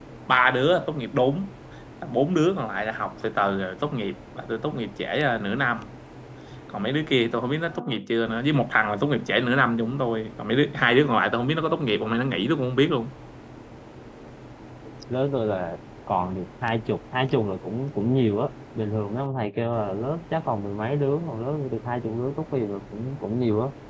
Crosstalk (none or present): none